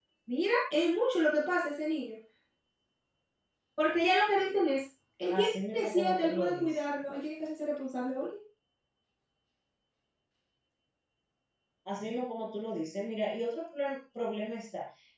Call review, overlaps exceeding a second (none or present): present